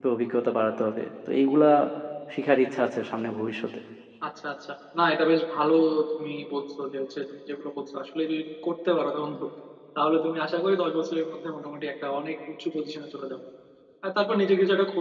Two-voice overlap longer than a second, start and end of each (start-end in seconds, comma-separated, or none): none